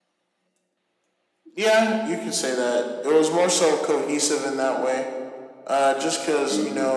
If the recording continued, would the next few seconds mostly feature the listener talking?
No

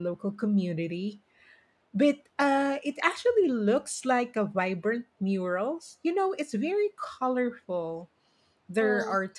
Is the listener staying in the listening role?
Yes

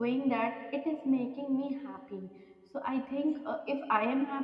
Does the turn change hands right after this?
No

